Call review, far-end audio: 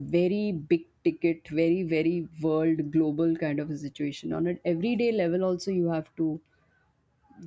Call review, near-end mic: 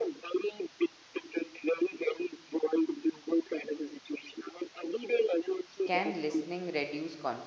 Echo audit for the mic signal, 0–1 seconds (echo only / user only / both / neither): echo only